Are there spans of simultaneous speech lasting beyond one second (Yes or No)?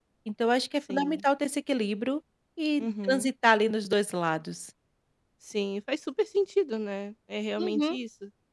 No